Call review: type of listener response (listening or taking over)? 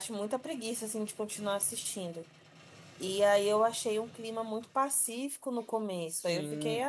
taking over